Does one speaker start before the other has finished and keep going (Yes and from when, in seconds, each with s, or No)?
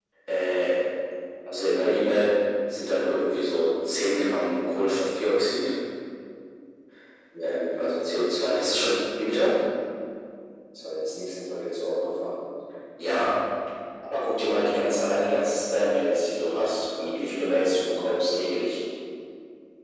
Yes, from 7.4 s